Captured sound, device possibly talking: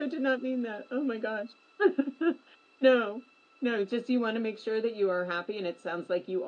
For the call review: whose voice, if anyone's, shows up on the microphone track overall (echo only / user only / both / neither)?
user only